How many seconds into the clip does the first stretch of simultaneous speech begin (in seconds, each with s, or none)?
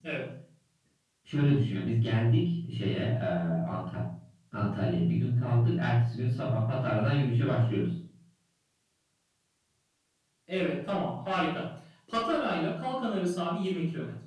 none